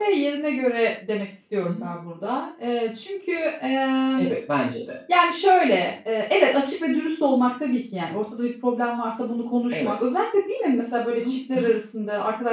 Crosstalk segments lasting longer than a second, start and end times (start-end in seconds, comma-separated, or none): none